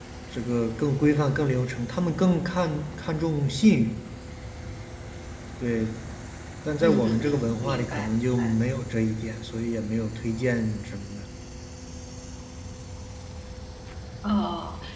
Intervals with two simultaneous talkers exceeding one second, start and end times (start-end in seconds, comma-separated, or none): 6.8-8.1